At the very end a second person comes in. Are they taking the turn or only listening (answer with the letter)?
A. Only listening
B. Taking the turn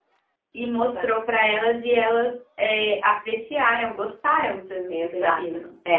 B